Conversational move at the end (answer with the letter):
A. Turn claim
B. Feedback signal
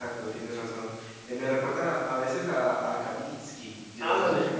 A